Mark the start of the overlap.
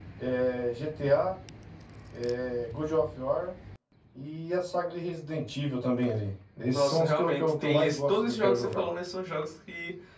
7 s

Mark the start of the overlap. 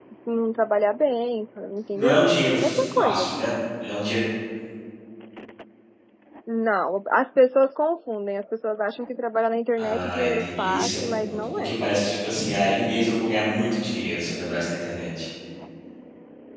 2 s

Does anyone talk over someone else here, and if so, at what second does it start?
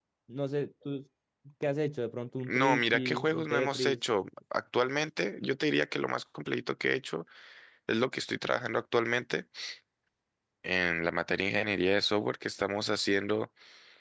2 s

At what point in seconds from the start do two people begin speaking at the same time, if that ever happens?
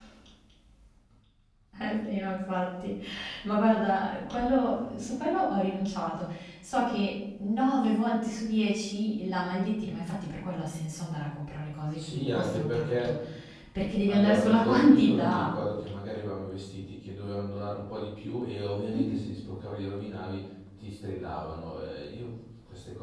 12 s

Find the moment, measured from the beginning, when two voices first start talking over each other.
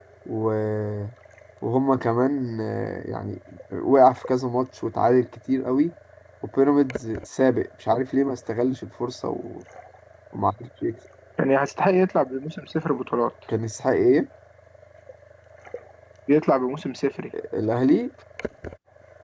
none

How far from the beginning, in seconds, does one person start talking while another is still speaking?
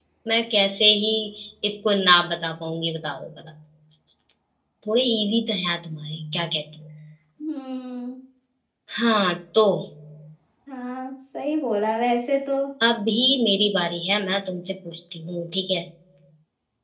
none

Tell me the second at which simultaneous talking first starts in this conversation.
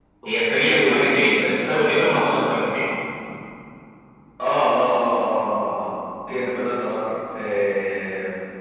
1 s

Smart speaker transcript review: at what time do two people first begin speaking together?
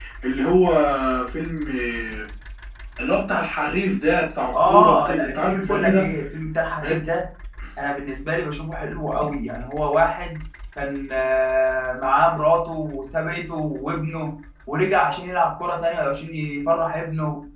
5 s

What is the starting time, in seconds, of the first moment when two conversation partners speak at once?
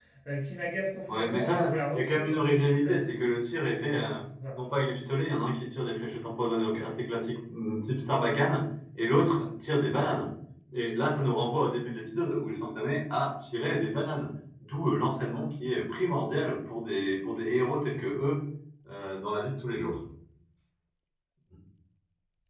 1 s

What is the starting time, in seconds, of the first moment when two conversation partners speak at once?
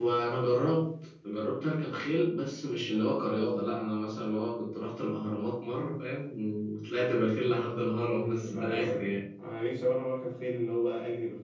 8 s

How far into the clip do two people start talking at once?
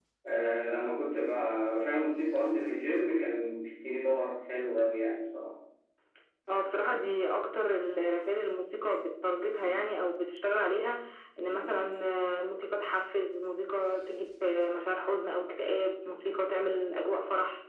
none

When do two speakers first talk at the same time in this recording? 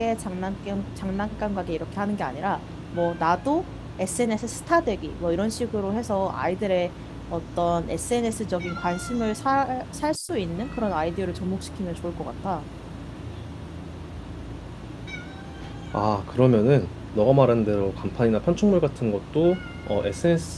none

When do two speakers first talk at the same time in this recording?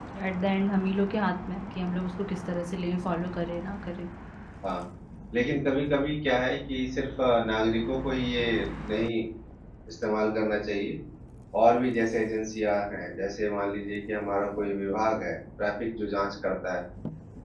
none

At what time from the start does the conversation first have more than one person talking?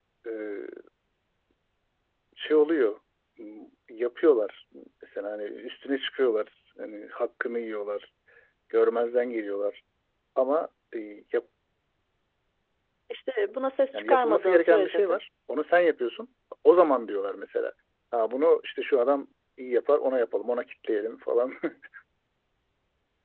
14 s

